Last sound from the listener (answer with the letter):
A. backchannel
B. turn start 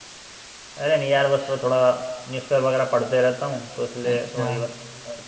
A